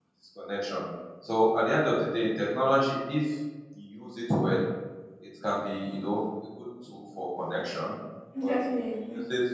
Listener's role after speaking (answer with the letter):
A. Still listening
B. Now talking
A